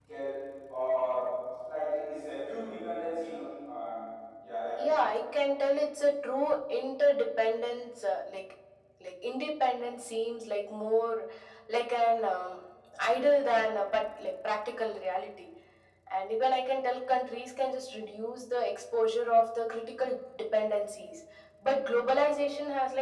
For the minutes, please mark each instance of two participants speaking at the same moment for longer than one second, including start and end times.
none

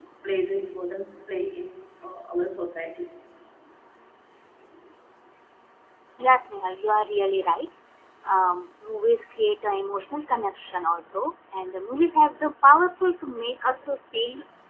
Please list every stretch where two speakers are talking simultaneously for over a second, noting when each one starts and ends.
none

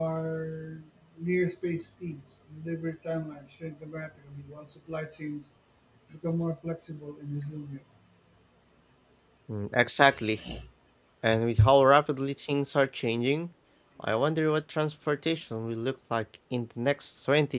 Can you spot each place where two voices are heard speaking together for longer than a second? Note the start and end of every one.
none

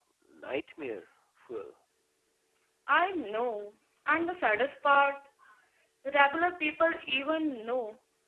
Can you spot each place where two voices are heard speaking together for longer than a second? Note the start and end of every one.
none

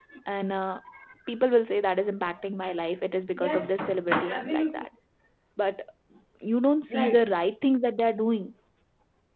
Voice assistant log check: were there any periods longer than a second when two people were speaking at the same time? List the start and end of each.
3.4-4.8

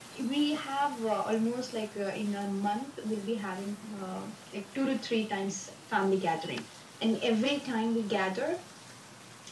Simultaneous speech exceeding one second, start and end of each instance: none

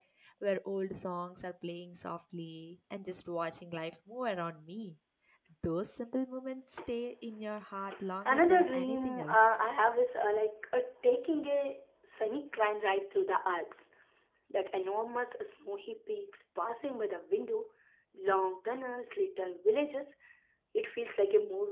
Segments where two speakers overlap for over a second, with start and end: 8.2-9.6

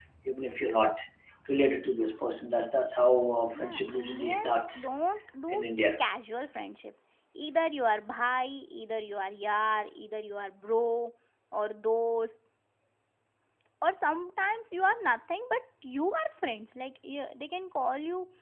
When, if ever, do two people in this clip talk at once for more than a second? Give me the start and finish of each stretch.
3.5-4.9

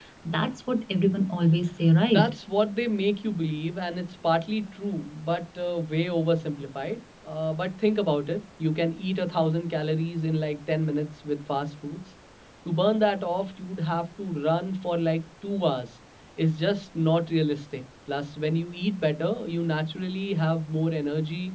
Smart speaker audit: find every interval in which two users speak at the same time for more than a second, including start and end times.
none

